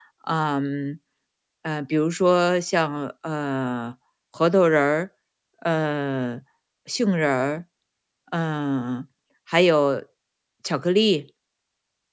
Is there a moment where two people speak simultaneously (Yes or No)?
No